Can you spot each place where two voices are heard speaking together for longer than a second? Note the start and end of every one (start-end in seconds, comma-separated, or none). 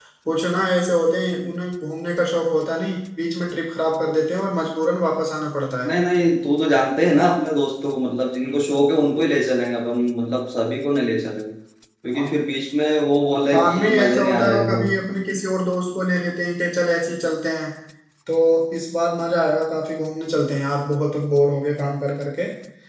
13.5-14.8